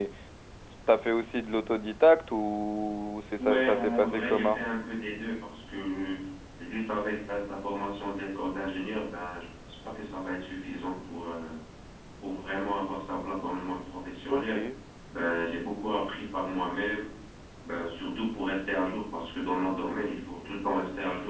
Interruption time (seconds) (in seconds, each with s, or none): 3.4 s